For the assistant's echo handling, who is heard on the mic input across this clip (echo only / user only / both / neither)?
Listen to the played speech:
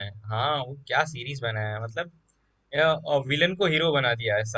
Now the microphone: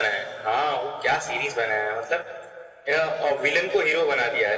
echo only